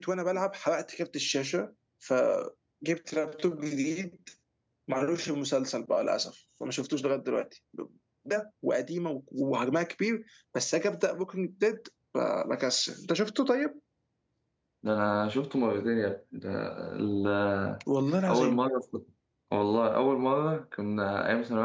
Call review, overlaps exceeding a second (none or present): none